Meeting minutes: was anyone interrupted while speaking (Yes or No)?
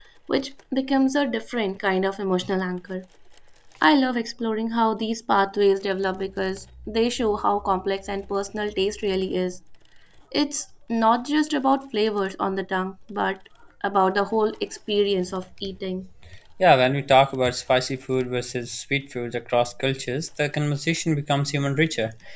No